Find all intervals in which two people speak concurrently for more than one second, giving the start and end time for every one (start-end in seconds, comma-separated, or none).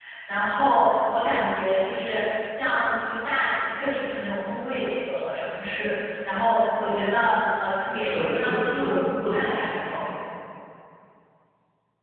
8.0-10.1